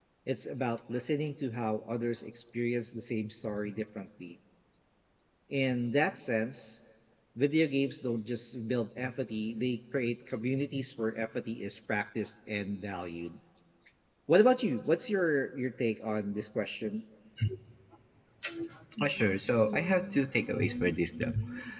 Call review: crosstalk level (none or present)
none